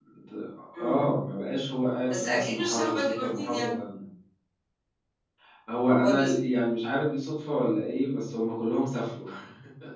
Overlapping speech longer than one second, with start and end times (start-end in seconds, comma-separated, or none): 2.1-3.7